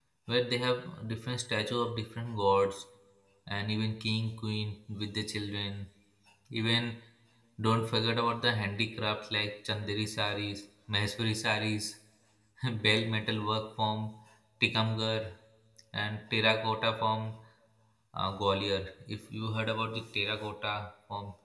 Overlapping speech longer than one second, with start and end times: none

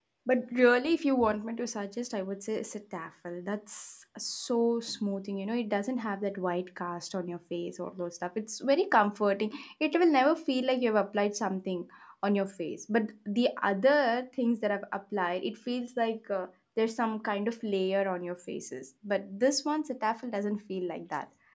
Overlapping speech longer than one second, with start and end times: none

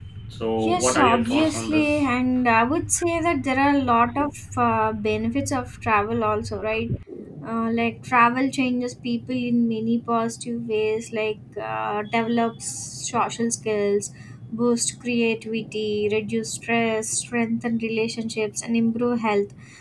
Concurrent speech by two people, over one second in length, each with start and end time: 0.6-2.0

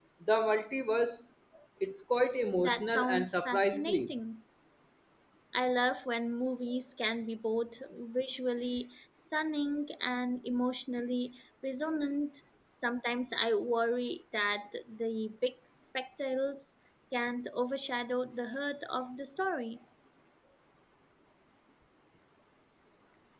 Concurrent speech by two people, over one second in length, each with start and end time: 2.6-4.1

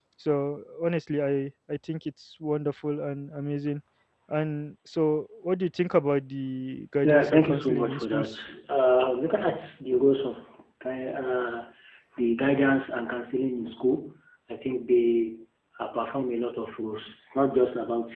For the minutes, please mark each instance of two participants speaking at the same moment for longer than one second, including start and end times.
7.0-8.3

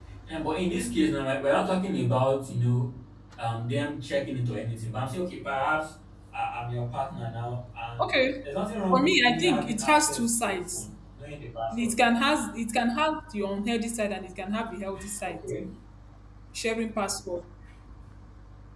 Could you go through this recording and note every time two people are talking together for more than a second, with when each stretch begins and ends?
8.9-10.8

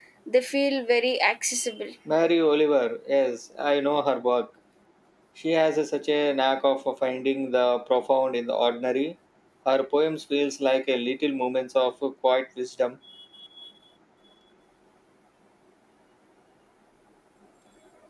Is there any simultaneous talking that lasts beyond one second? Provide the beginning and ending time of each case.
none

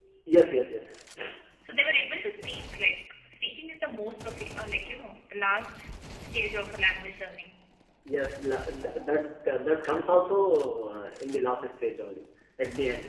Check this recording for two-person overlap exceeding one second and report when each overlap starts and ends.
none

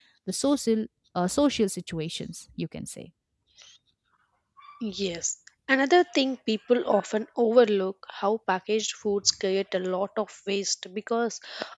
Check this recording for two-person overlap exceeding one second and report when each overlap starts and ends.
none

